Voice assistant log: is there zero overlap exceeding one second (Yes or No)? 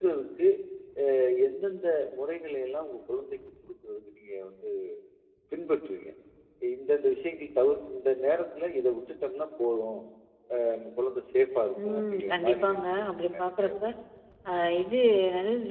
No